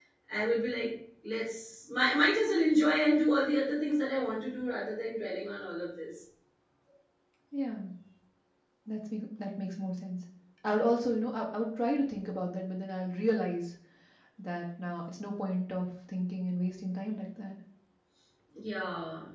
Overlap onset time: none

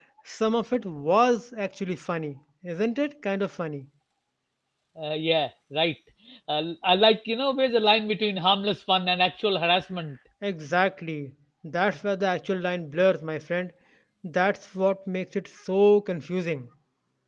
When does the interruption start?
none

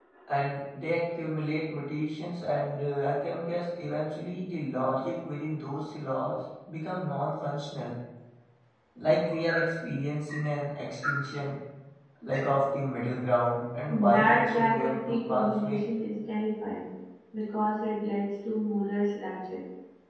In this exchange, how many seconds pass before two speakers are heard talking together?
13.9 s

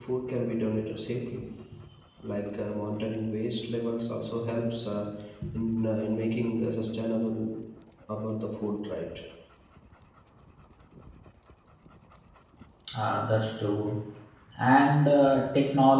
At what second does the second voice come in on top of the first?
none

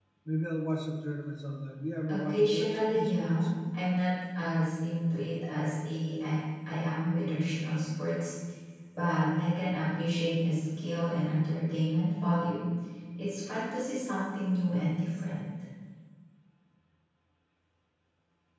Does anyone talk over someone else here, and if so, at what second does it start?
2.1 s

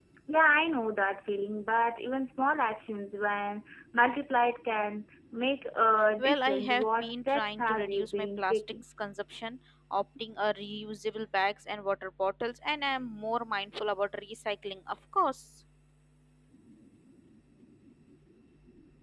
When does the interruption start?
6.2 s

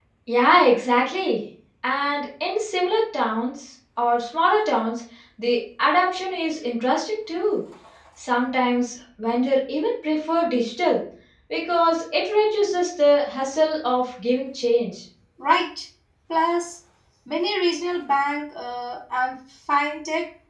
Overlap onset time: none

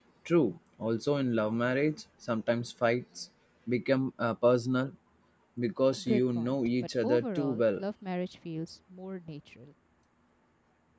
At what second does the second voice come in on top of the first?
6.0 s

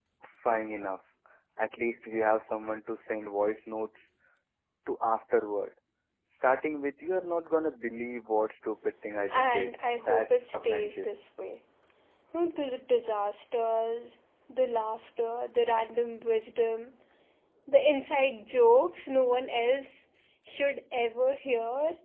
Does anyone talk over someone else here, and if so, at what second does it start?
9.3 s

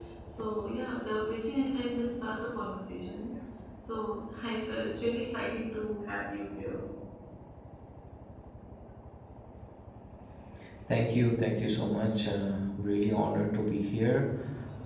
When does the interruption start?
none

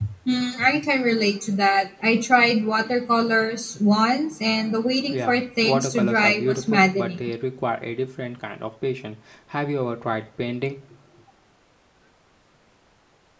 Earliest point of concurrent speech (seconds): 5.1 s

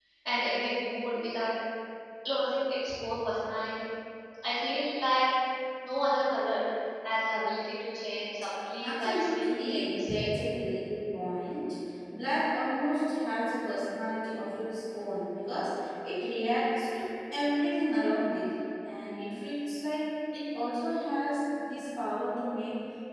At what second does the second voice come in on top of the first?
8.8 s

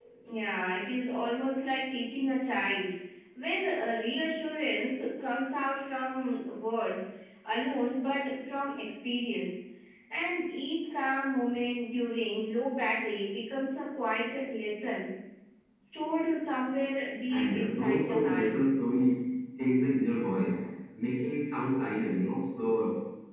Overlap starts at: 17.3 s

